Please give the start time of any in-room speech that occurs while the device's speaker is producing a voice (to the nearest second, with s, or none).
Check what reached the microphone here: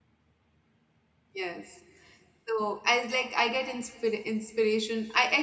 1 s